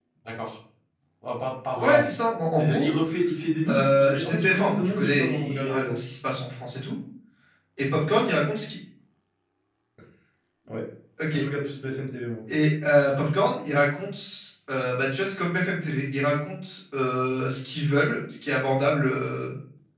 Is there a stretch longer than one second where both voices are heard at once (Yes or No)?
Yes